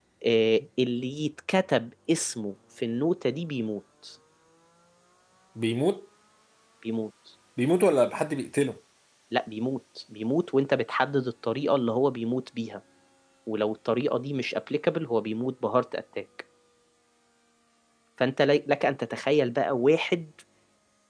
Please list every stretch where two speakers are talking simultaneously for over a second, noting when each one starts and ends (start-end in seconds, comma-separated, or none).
none